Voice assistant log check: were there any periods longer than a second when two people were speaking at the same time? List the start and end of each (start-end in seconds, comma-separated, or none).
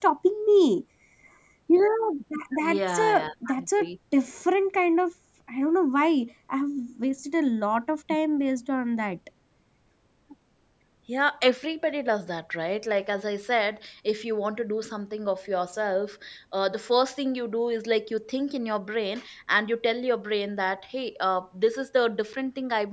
2.6-3.9